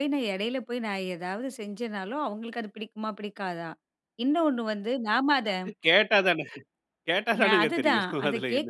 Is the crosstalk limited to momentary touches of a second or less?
No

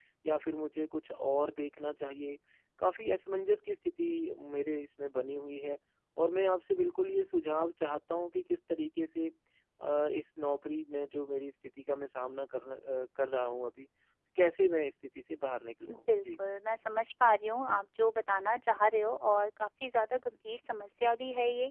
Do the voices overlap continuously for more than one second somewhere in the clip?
No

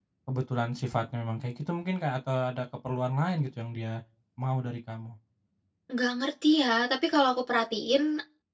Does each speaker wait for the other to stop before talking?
Yes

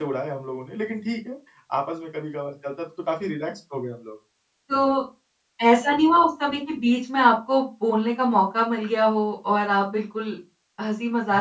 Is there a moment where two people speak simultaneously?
No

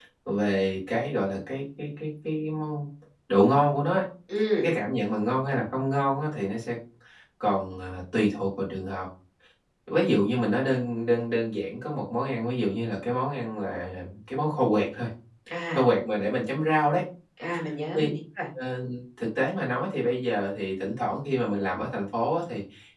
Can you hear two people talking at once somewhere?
No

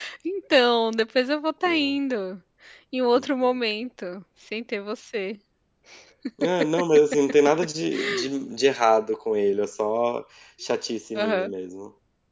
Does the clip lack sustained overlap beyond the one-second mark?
Yes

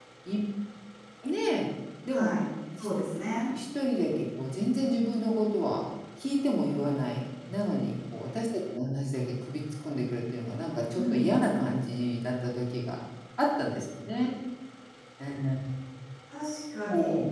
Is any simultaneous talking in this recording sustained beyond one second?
No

